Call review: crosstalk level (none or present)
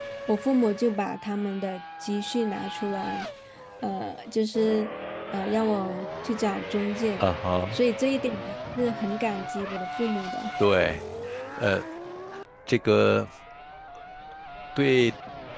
none